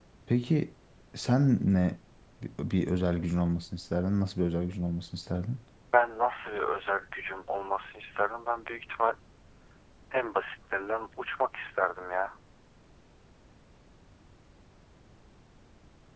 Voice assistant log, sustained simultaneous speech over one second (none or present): none